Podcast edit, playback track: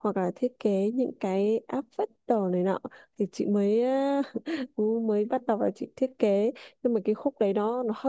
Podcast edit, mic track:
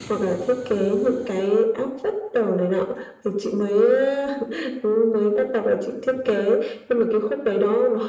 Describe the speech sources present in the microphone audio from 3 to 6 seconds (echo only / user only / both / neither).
echo only